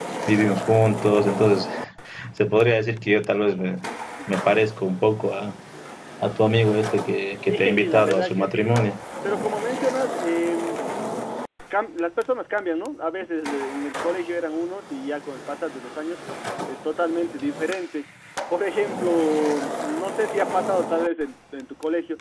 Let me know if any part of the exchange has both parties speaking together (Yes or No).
Yes